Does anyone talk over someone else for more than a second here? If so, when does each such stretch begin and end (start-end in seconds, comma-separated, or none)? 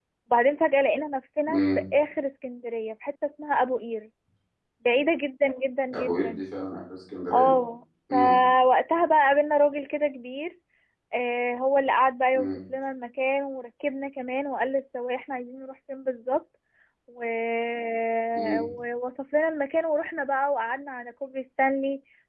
none